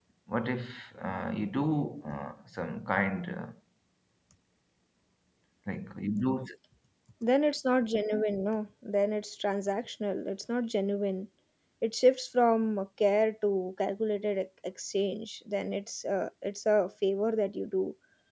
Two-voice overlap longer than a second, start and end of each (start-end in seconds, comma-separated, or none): none